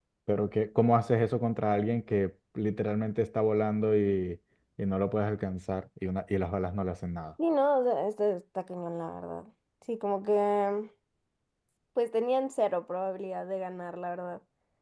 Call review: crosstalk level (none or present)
none